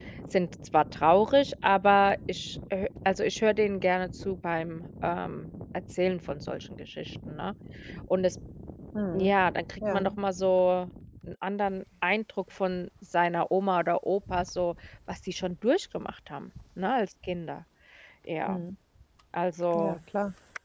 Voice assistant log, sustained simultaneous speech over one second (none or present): none